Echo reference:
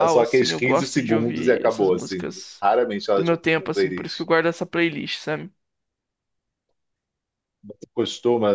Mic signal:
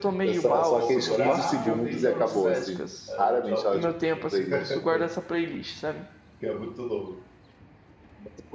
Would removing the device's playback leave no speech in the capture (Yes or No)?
No